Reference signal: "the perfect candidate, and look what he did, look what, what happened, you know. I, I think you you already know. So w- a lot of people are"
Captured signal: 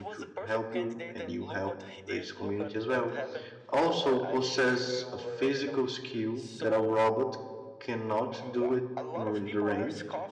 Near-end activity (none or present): present